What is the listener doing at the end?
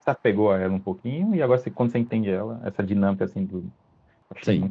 taking over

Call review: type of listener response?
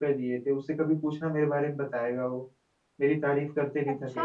taking over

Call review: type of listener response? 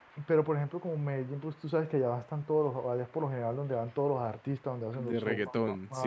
taking over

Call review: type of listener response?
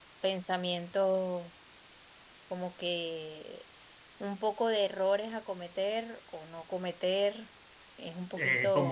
taking over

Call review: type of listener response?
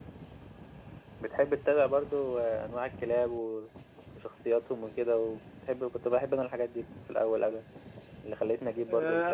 taking over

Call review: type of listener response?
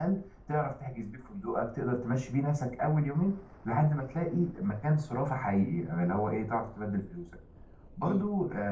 listening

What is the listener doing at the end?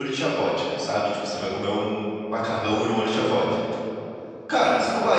listening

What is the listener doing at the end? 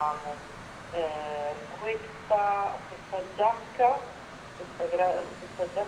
listening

